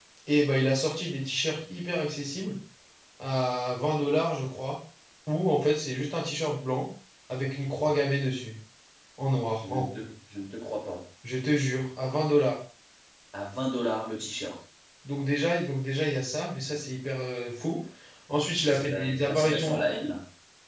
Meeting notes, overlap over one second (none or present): present